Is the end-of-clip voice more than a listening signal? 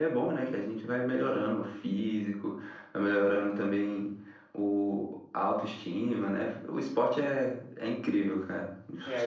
Yes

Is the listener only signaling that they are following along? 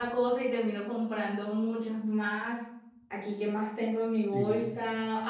Yes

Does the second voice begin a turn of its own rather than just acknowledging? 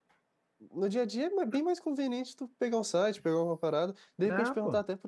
No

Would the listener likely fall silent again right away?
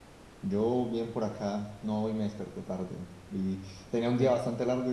Yes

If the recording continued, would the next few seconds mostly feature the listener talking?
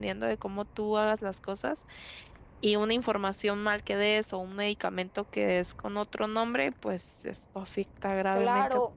Yes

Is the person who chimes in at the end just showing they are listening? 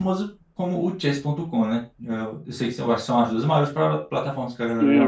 No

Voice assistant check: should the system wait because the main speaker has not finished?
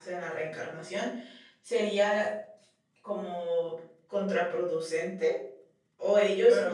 No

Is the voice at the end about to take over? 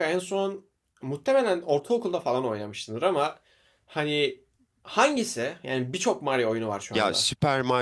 Yes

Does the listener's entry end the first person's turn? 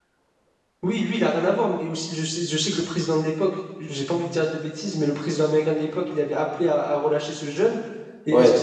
No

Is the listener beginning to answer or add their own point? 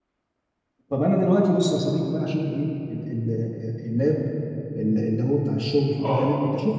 No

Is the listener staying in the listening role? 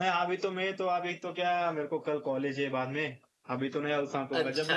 Yes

